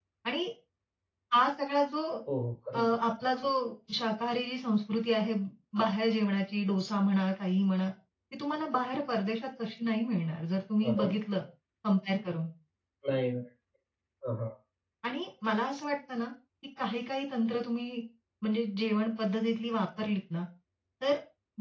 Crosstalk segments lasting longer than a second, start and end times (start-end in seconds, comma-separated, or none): none